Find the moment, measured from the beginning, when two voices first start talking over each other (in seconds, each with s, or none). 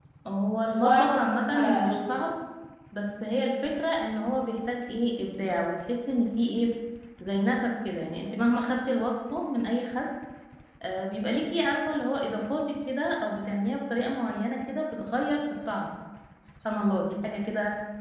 0.7 s